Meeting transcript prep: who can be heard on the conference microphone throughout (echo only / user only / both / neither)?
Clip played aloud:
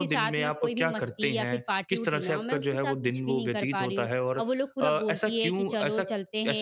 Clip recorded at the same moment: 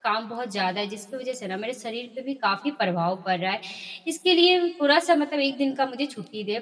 user only